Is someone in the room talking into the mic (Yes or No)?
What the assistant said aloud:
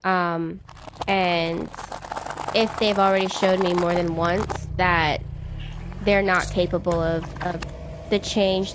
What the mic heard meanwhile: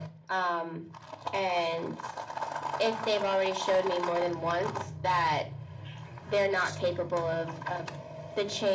No